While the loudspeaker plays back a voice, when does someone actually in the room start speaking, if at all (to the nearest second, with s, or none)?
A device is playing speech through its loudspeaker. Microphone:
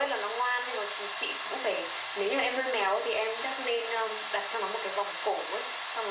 none